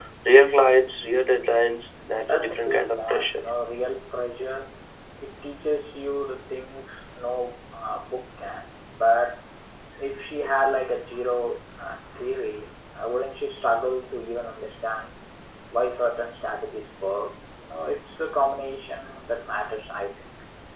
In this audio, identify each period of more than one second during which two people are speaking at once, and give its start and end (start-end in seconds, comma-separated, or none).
2.1-3.4